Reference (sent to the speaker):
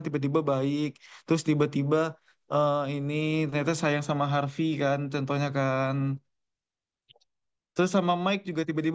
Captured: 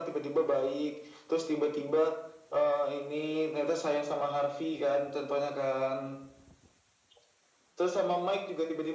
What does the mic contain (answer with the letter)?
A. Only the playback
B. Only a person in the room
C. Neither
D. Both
A